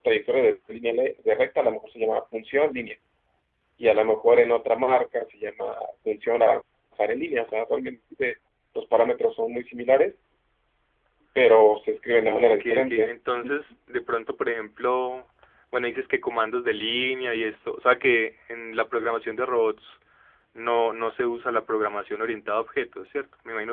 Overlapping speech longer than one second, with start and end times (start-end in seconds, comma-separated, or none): 12.3-13.5